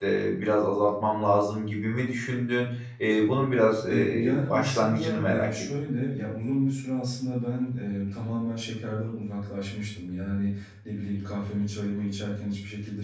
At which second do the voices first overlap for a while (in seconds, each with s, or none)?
3.9 s